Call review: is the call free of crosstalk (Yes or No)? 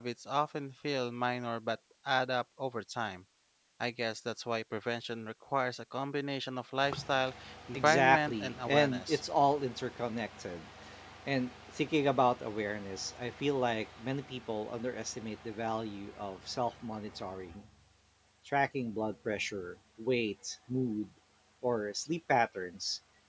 No